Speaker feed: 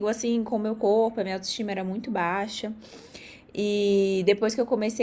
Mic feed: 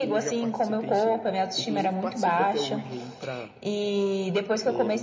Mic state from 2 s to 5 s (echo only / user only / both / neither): both